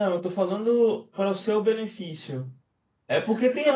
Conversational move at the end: listening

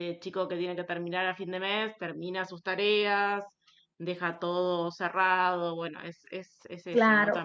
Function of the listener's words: taking over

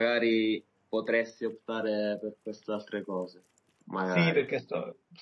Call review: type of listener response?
taking over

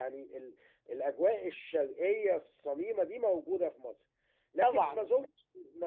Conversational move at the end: listening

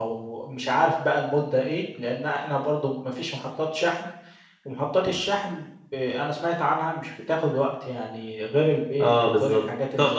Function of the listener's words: taking over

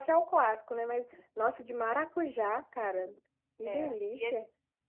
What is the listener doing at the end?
taking over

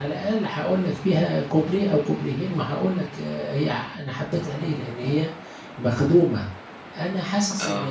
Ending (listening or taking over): listening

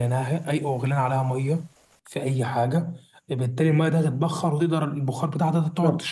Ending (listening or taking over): taking over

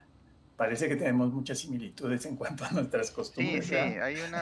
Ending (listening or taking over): taking over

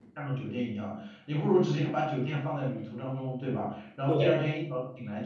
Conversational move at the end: listening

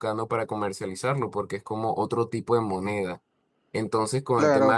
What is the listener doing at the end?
listening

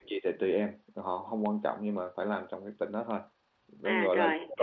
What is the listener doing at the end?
taking over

